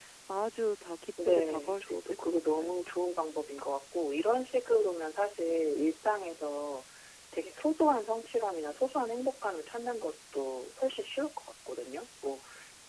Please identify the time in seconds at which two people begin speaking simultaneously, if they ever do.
1.2 s

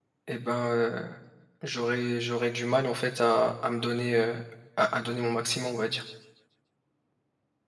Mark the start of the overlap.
none

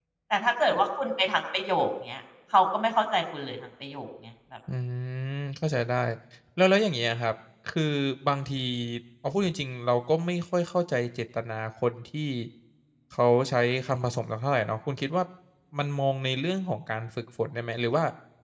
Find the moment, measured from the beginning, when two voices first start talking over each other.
none

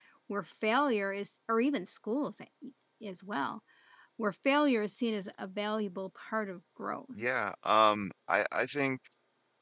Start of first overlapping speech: none

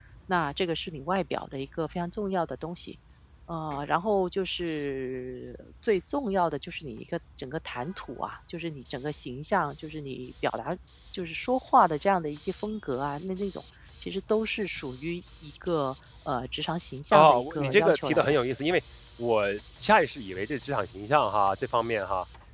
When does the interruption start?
17.1 s

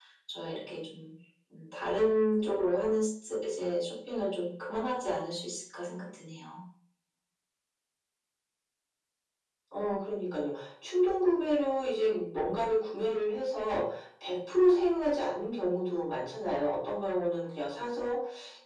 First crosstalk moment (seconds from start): none

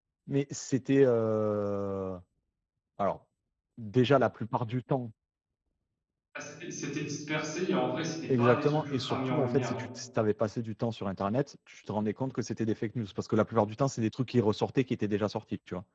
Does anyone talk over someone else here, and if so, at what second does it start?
8.3 s

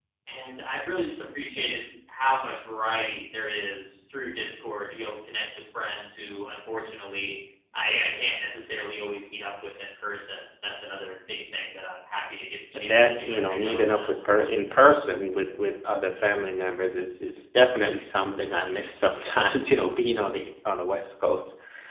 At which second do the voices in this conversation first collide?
12.7 s

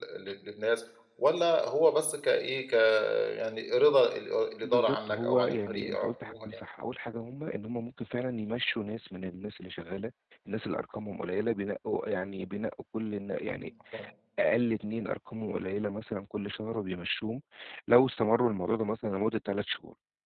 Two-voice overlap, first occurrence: 4.6 s

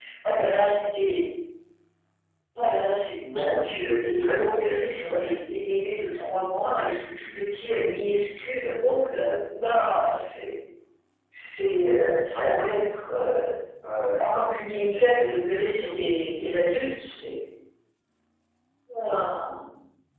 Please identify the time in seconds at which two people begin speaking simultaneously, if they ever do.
3.3 s

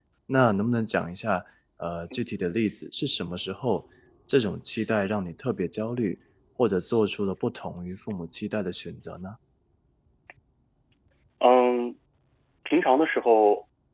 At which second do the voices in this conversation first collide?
none

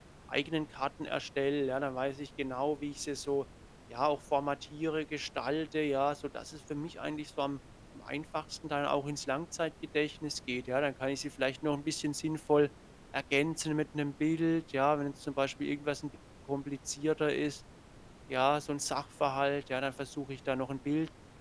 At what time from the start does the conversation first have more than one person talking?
none

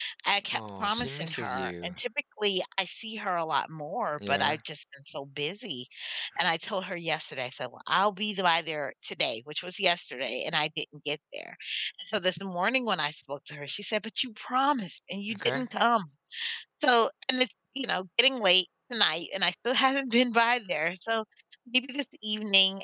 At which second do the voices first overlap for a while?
0.5 s

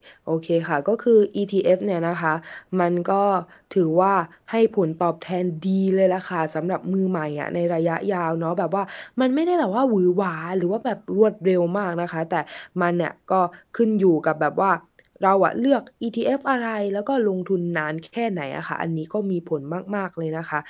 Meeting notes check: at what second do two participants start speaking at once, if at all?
none

